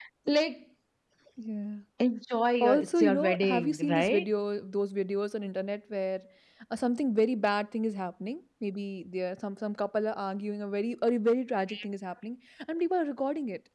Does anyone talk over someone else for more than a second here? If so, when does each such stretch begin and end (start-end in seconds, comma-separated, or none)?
2.6-4.2